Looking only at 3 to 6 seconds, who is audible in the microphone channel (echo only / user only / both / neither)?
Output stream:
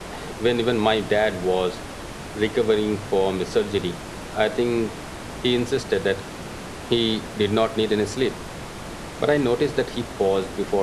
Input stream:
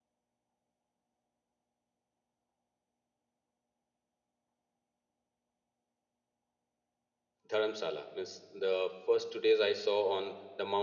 neither